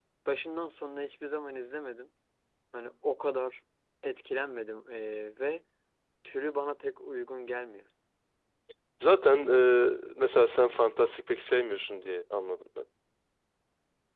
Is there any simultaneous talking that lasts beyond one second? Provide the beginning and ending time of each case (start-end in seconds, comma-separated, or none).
none